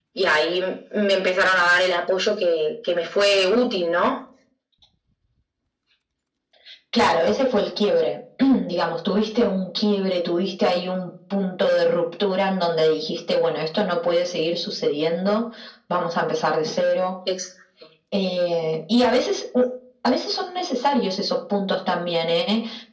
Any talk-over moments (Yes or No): No